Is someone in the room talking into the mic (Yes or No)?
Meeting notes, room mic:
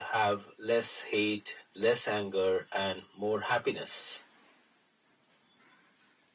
No